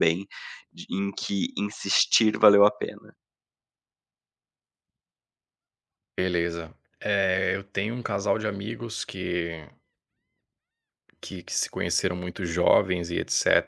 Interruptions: none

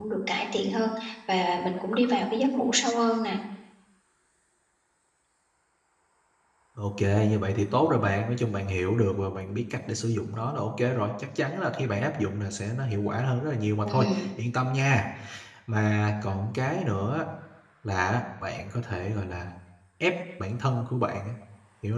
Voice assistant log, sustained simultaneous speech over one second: none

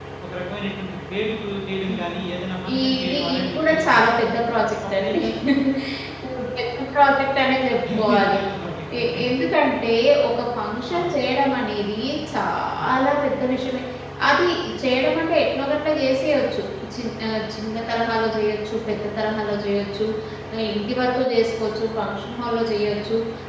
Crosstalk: present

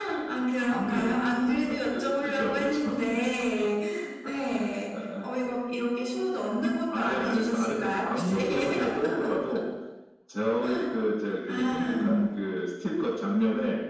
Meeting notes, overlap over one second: present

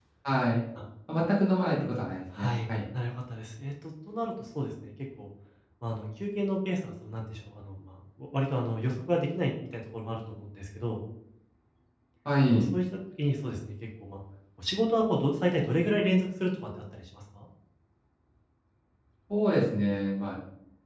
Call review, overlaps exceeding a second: none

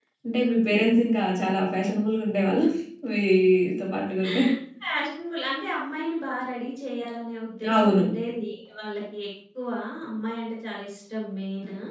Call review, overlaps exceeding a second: none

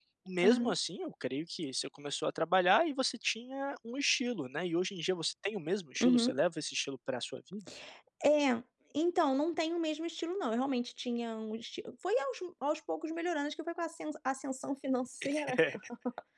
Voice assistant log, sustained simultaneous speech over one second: none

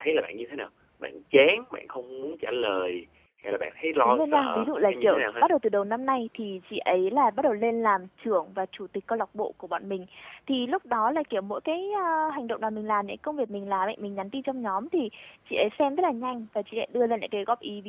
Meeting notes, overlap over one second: present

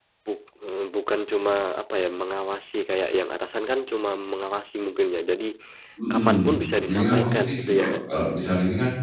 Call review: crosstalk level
present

